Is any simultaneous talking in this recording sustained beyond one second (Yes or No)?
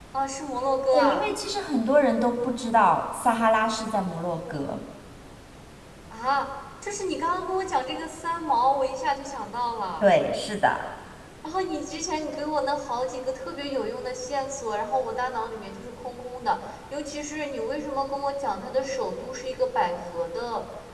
No